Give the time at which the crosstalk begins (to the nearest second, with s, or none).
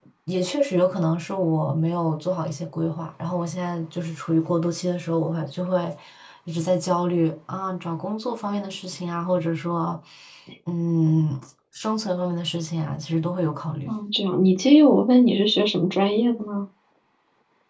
none